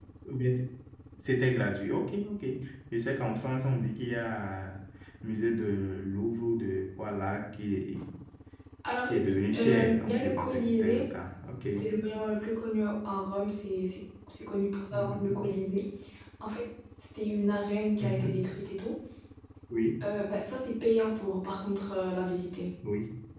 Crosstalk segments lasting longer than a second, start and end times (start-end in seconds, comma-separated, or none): 9.6-11.1